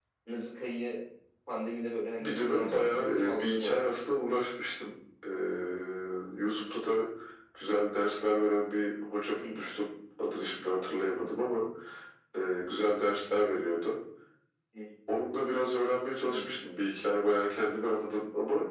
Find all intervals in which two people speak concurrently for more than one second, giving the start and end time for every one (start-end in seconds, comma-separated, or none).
2.2-4.0